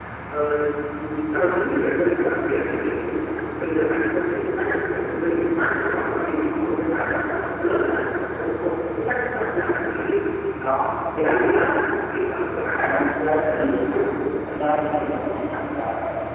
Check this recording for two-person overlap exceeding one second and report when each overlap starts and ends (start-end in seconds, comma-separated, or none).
12.7-14.0